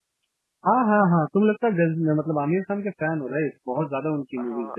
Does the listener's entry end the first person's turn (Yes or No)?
Yes